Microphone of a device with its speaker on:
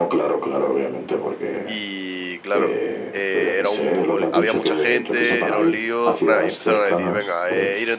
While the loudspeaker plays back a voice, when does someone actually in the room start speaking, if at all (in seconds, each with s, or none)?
1.6 s